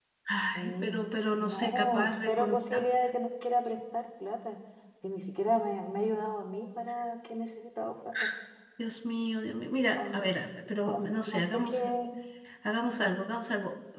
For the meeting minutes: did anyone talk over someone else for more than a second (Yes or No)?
Yes